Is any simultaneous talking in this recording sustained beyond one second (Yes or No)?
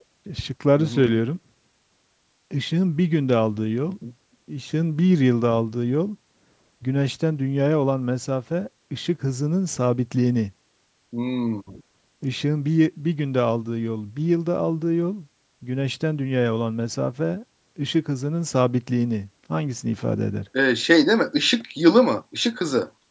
No